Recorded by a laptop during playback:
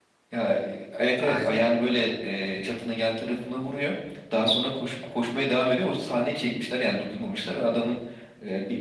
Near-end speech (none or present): present